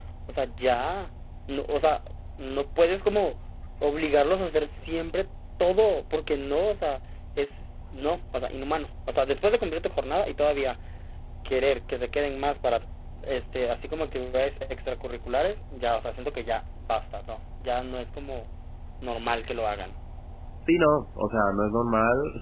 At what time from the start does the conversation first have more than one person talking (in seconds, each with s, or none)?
none